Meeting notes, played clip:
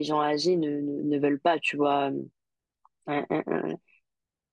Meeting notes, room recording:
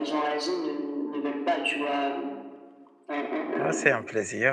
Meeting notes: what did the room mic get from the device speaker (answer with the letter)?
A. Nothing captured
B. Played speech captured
B